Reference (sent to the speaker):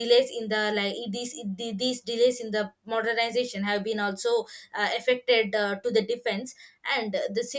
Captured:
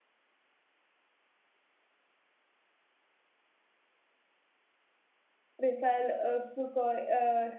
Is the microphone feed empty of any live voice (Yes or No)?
No